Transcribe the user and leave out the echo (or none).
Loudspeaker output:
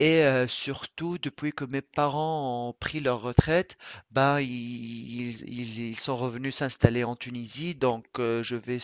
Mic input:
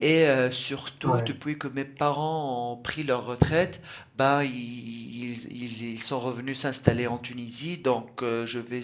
Ouais.